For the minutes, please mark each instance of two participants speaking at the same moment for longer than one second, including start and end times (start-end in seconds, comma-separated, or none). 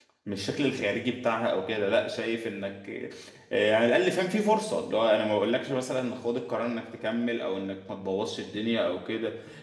none